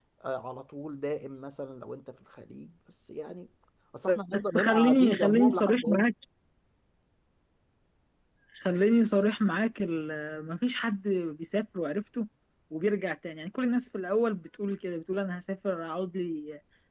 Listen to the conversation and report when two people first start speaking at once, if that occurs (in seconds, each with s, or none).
4.3 s